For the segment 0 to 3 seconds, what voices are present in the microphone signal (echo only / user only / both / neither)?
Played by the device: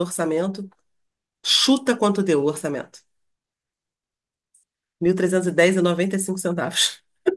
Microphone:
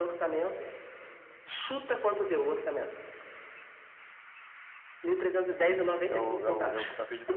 echo only